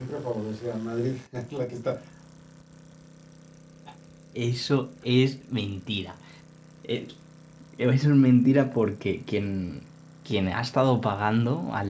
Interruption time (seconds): none

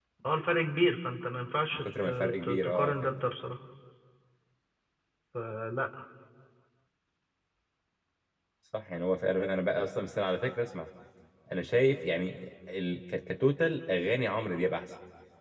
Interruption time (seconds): 1.7 s

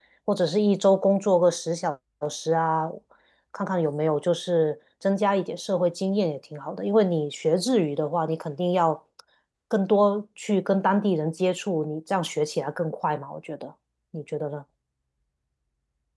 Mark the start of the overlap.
none

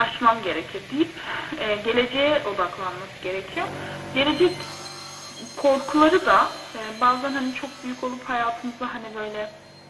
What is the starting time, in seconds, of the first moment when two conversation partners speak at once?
none

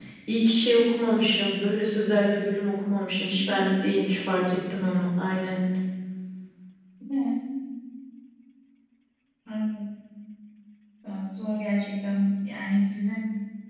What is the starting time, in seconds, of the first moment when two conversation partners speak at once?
none

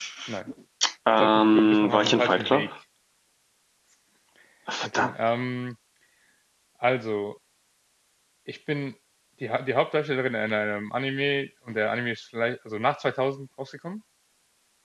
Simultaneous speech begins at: 1.2 s

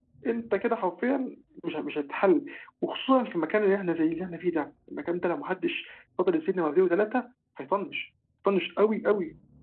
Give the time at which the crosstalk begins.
none

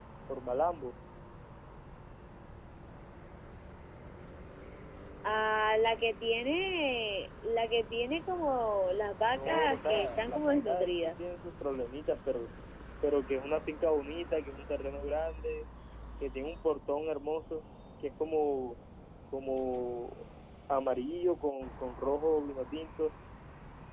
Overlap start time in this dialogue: 9.3 s

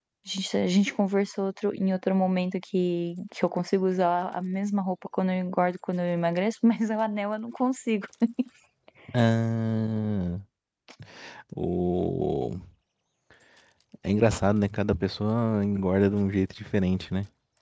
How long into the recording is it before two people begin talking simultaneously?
none

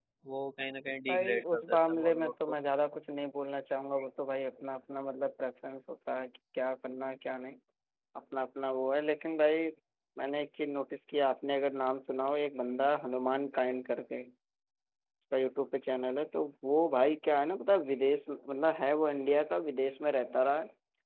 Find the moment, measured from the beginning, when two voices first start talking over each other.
1.1 s

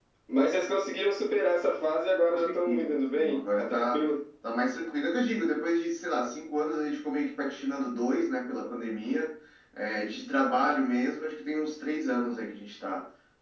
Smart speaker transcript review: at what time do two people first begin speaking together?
2.3 s

